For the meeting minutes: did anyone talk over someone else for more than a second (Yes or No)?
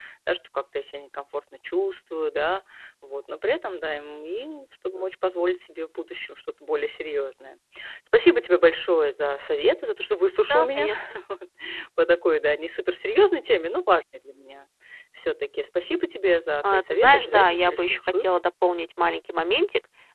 Yes